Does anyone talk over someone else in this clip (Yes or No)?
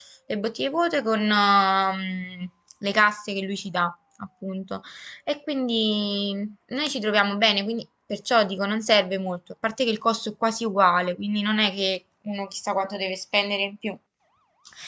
No